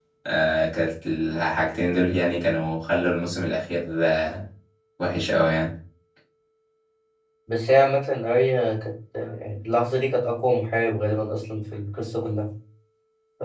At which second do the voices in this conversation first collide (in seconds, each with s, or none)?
none